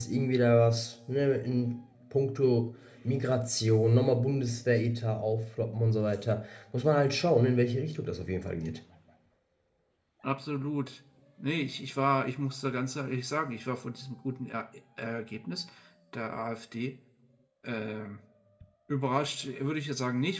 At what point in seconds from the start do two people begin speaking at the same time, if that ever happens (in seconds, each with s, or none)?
none